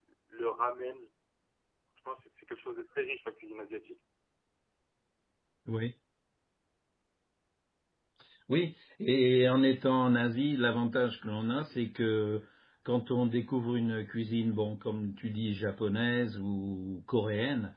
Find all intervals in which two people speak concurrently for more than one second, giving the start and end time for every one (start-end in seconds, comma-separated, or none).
none